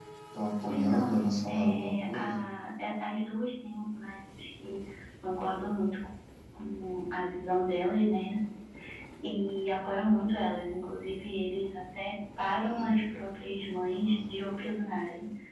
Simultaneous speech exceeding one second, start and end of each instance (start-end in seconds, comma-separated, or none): 0.7-2.4